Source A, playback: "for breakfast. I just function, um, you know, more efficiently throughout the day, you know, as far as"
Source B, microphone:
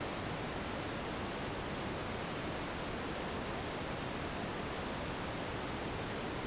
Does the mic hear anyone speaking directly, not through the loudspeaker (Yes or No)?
No